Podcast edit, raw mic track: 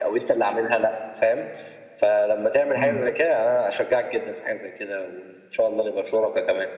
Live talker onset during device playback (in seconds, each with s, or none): 2.8 s